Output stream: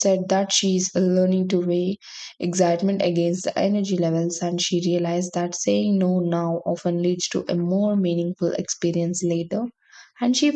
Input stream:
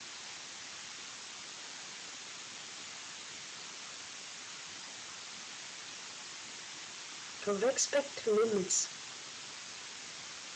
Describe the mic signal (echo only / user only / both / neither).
user only